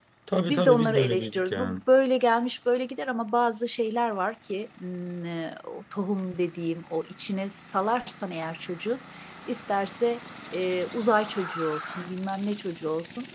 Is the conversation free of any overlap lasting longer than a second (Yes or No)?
No